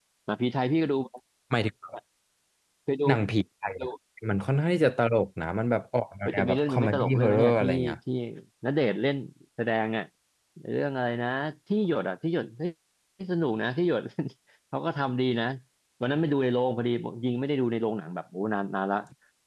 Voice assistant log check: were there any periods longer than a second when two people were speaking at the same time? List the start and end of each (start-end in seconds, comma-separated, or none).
6.2-8.0